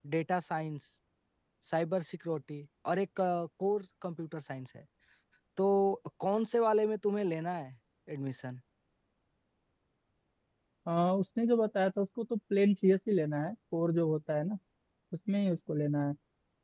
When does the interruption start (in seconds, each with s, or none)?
none